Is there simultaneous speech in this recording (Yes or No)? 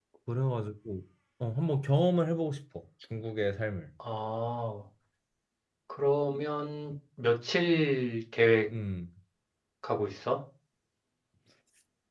No